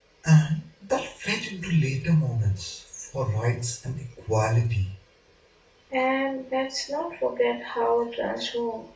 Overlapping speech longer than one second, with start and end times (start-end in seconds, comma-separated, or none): none